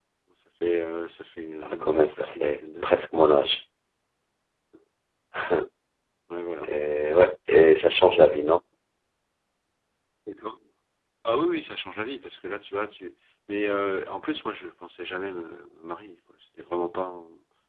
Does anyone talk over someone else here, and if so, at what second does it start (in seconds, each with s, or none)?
1.6 s